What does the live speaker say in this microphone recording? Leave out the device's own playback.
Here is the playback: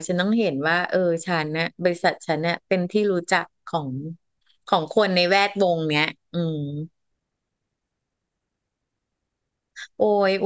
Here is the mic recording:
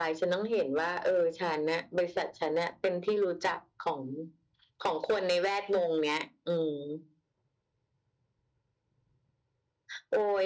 none

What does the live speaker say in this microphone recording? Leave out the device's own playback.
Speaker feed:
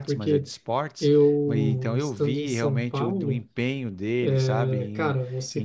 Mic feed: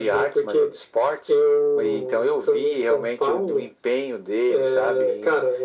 none

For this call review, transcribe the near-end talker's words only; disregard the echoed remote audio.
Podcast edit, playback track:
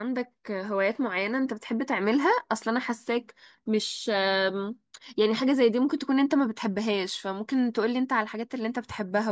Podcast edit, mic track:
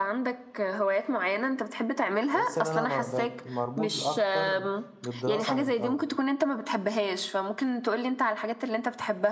تحس ان انا م- بقيت مربوط اكتر بالدراسة عن الاول

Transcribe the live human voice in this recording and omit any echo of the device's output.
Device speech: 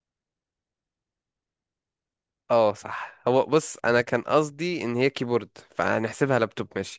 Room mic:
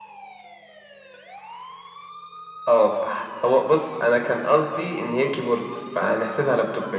none

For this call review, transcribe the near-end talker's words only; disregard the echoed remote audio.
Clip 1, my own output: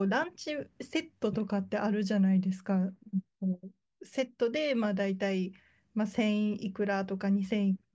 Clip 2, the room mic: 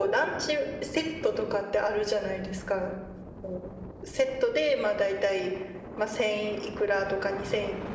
none

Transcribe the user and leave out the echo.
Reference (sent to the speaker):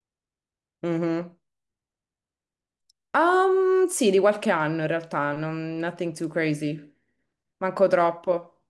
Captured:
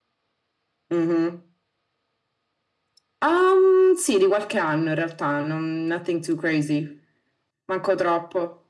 none

